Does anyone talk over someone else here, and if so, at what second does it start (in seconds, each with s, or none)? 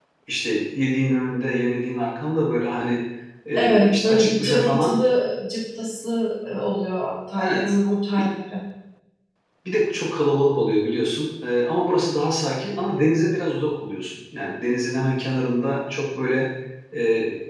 3.5 s